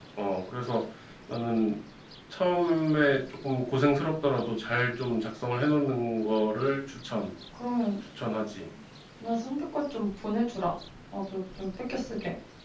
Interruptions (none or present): none